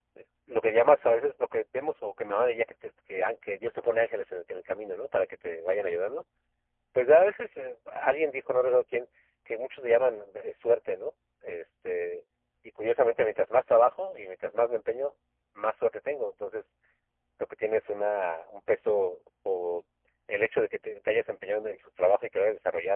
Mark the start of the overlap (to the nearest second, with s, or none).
none